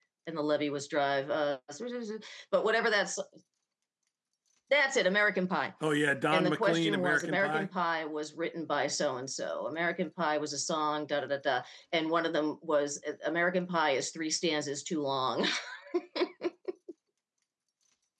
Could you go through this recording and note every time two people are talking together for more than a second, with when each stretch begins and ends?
6.3-7.7

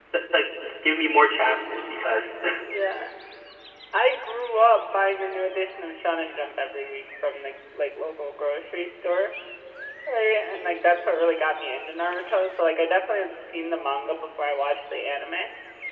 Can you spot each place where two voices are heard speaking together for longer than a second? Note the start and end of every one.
none

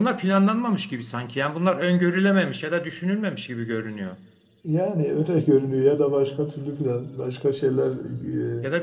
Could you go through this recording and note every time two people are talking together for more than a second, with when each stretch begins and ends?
none

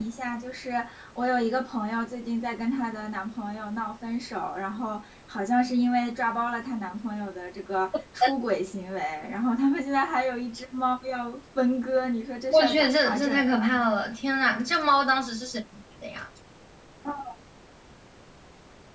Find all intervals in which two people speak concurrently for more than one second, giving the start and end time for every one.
12.5-13.8

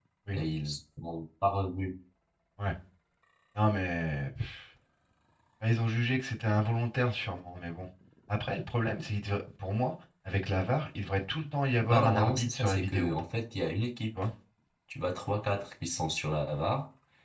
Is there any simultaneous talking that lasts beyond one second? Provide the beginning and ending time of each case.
11.8-13.1

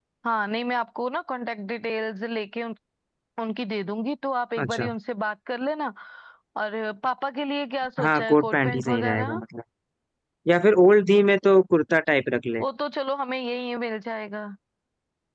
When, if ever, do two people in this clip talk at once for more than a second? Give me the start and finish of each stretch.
8.0-9.4

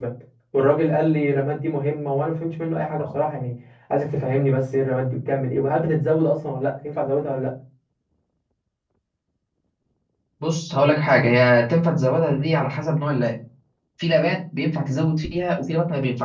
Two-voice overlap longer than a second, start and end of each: none

